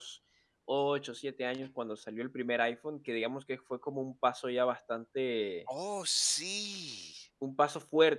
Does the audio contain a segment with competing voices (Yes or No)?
No